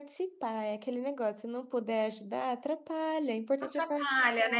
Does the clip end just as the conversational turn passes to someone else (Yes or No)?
Yes